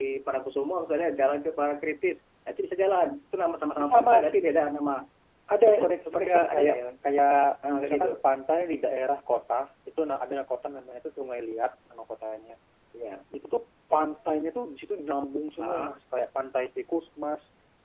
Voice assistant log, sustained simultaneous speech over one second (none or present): present